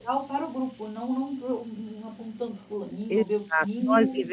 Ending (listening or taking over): taking over